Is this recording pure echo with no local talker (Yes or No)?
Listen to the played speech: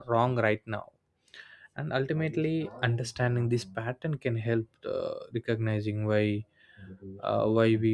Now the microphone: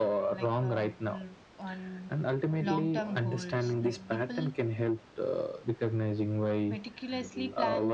No